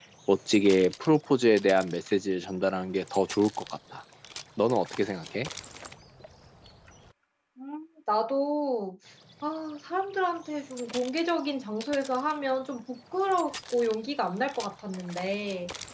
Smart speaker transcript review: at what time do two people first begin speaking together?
none

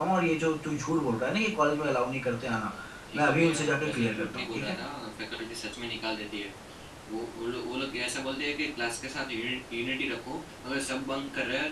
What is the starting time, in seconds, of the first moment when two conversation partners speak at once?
3.1 s

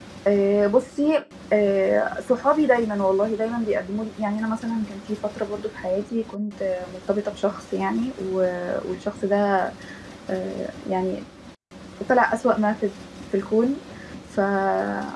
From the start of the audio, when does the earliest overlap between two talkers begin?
none

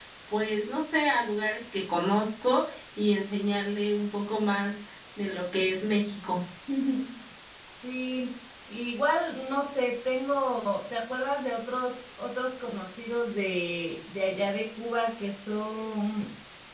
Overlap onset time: none

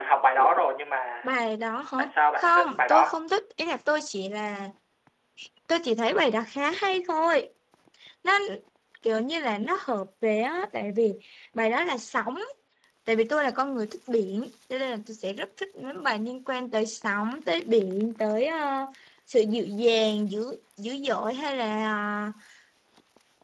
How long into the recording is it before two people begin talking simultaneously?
2.0 s

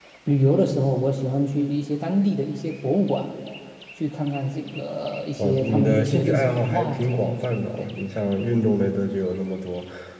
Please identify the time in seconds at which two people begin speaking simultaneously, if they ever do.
5.4 s

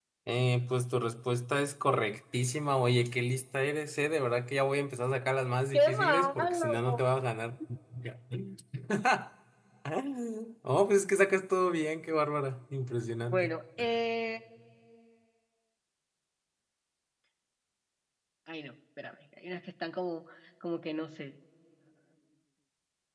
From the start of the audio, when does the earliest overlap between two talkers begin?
5.7 s

